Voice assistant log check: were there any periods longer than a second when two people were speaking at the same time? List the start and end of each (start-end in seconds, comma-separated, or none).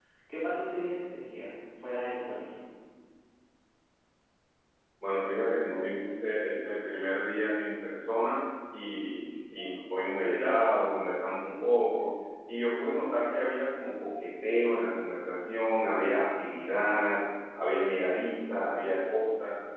none